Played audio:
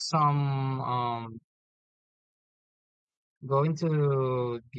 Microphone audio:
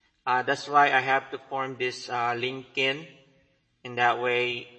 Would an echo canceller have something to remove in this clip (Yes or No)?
No